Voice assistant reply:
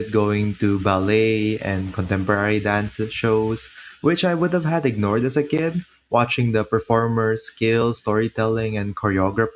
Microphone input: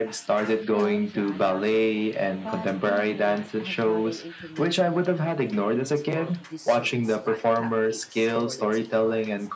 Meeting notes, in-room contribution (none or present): present